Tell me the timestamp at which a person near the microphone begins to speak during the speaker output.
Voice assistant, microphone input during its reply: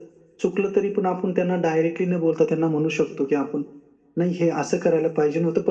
none

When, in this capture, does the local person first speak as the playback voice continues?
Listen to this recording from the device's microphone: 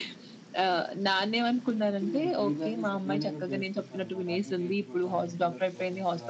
2 s

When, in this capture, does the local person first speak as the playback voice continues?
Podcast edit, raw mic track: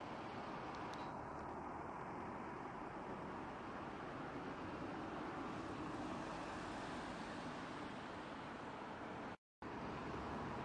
none

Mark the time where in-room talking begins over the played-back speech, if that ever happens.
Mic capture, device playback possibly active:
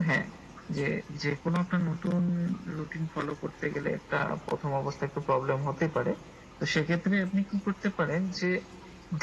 none

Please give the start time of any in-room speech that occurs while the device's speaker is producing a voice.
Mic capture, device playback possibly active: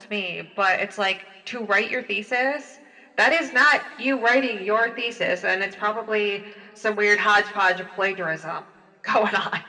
none

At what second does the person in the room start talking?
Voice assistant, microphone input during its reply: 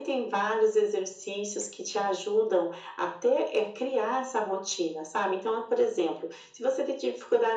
none

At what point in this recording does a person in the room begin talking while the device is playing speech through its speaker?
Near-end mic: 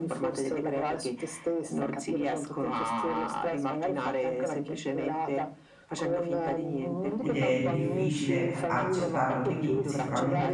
7 s

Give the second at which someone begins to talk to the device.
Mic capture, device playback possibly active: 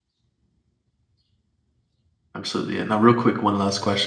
2 s

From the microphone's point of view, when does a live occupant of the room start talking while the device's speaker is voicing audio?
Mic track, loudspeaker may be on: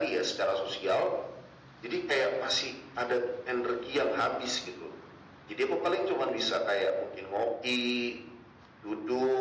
none

